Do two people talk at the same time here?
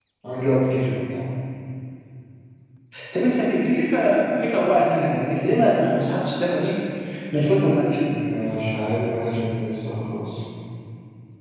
No

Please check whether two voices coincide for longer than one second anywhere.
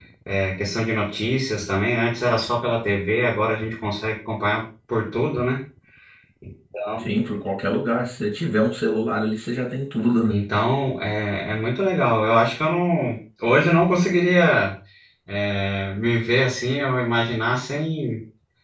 No

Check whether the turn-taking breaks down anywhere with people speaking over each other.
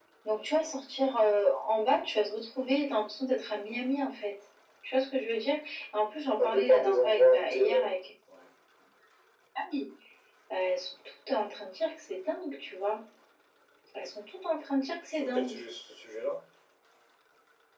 Yes, from 6.4 s

